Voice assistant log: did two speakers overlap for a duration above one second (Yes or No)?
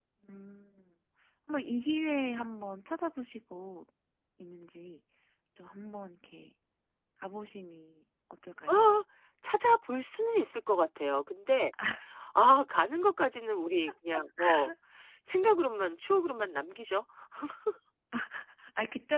No